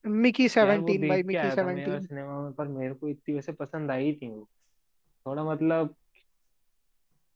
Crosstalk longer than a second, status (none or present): present